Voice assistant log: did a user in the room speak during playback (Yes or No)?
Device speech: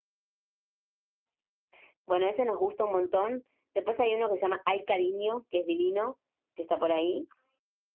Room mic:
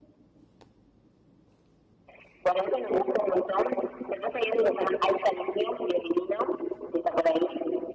No